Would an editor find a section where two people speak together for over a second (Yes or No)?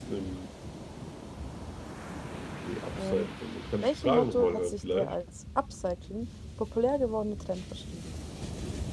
Yes